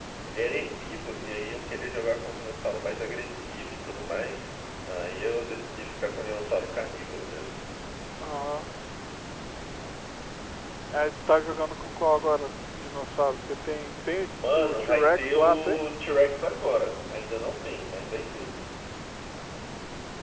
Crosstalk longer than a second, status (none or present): present